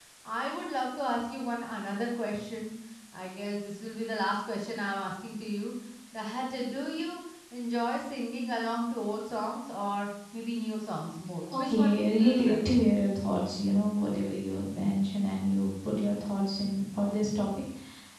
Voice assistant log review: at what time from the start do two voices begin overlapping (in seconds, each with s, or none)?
11.5 s